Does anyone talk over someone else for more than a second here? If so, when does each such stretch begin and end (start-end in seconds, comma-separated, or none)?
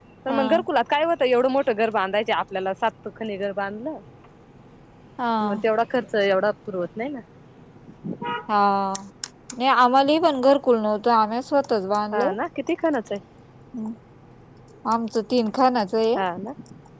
none